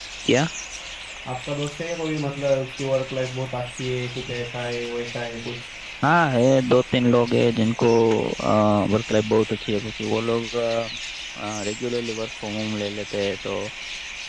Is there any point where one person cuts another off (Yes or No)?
No